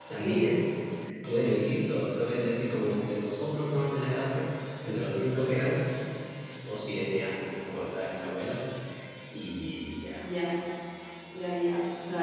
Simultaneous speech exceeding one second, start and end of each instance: none

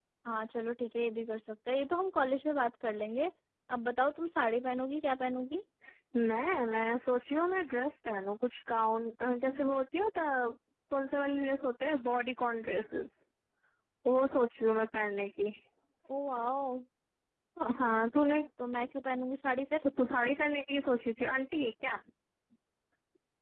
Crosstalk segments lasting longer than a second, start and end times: none

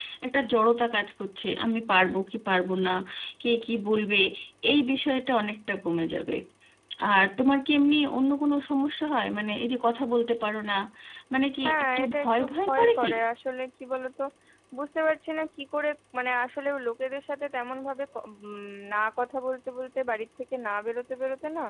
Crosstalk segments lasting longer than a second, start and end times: 11.6-13.1

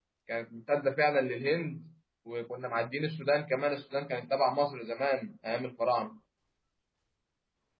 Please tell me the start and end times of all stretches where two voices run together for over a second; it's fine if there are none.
none

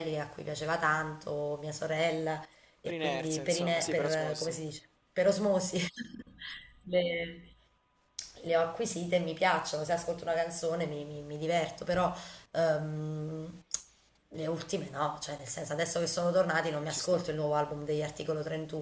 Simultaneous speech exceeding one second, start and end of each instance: 2.9-4.6

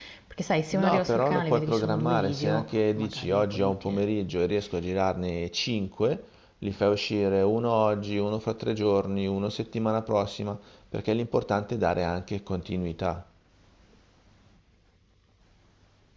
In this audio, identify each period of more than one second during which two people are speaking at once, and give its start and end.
0.7-4.0

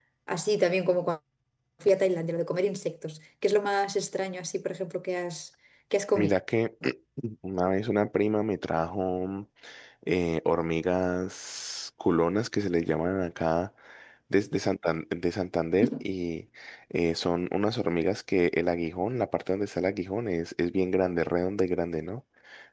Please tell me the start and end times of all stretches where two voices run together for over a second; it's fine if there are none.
none

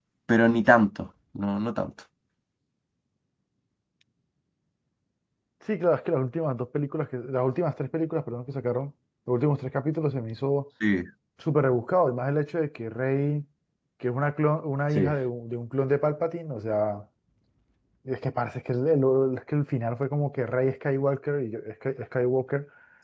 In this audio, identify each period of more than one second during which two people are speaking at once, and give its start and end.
none

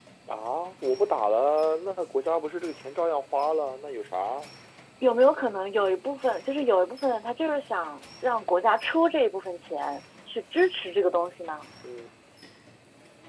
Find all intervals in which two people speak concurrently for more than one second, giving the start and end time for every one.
none

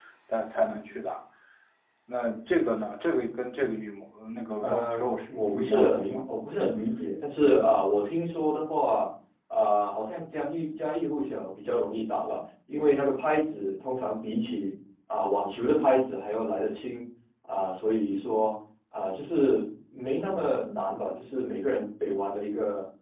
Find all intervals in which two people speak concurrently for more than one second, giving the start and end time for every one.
4.6-6.4

